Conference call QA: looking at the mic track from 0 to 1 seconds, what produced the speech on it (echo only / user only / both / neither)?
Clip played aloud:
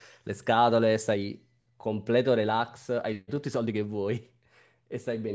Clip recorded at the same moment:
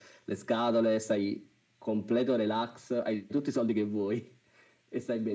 echo only